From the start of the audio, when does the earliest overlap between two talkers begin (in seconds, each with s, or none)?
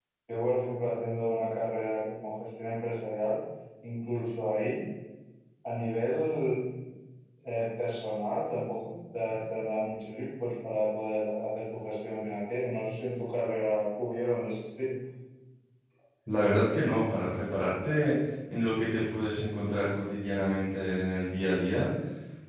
none